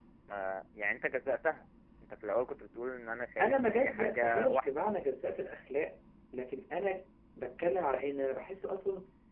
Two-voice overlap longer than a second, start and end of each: 3.4-4.8

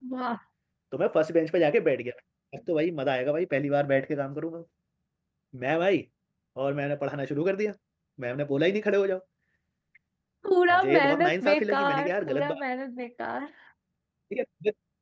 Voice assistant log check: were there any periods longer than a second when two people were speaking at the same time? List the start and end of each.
10.7-12.6

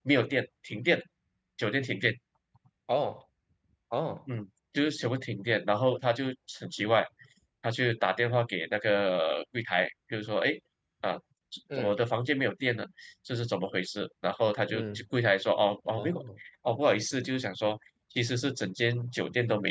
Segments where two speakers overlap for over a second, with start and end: none

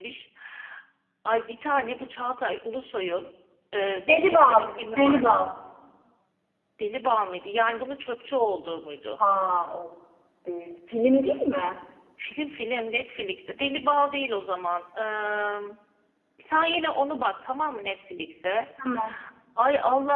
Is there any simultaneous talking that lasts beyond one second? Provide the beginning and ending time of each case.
4.1-5.3

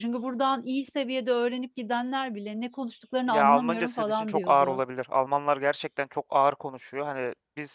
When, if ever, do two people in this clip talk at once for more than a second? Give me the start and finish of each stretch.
3.3-4.8

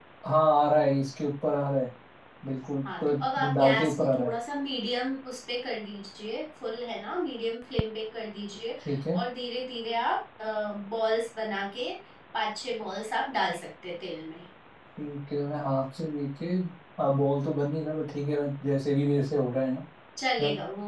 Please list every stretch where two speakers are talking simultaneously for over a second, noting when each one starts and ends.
3.0-4.3

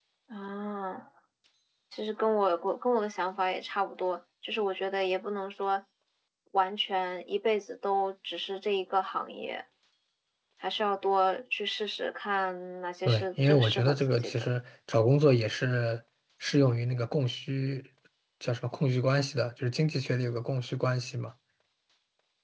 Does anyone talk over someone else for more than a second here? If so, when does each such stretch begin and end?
13.0-14.5

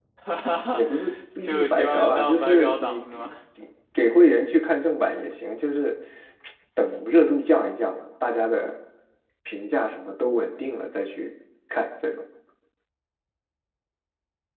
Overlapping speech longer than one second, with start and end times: 1.4-3.3

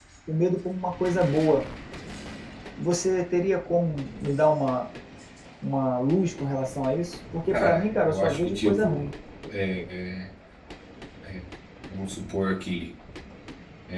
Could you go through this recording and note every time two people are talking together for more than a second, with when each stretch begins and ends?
7.5-9.1

